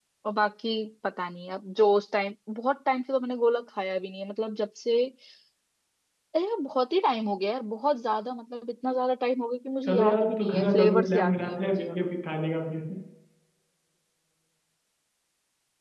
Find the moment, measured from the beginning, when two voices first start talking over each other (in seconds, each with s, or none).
9.8 s